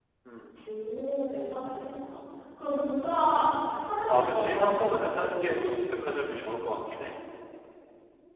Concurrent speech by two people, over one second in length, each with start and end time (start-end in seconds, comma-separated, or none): 4.1-5.8